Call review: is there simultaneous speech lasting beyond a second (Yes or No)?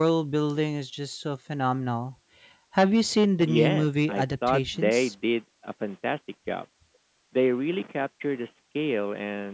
Yes